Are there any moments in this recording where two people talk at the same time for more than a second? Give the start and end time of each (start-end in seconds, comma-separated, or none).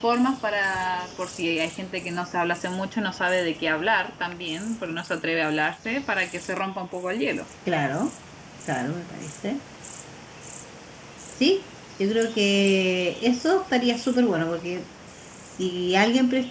none